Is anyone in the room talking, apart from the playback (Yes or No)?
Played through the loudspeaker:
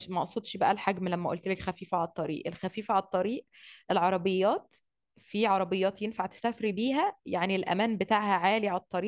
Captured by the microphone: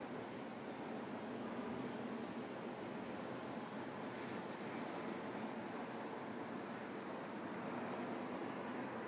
No